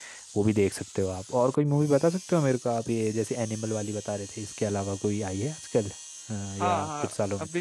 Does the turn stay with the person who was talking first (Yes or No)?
No